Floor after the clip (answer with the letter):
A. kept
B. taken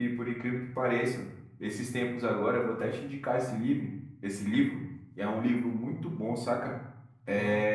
A